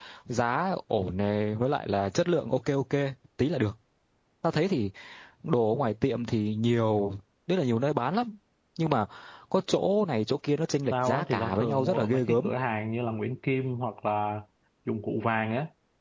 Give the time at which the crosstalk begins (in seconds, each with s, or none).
10.9 s